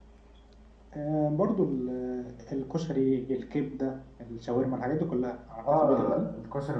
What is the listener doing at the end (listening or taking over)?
taking over